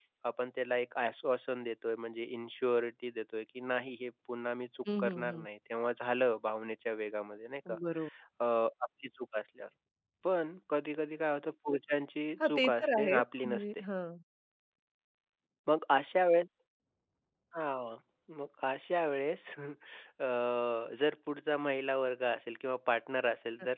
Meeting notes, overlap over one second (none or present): present